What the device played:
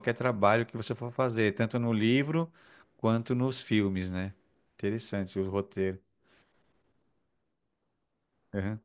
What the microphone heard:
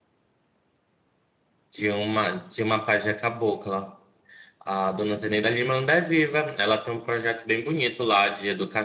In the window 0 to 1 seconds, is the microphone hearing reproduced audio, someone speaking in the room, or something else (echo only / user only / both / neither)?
neither